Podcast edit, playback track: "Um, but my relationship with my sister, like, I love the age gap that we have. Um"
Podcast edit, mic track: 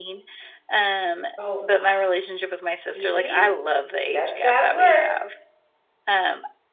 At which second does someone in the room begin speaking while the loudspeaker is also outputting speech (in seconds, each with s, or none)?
1.4 s